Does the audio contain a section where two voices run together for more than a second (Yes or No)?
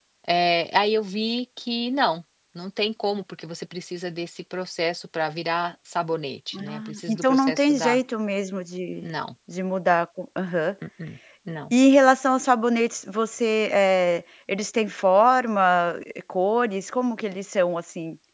Yes